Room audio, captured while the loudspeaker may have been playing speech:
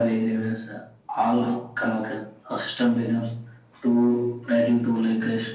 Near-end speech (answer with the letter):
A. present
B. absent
B